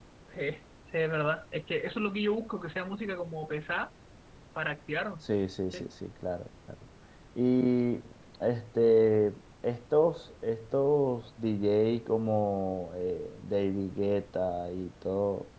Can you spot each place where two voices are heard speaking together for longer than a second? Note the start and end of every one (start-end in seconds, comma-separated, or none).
none